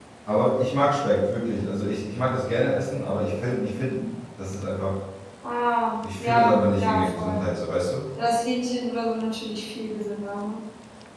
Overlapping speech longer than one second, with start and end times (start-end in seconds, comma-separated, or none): 6.0-7.5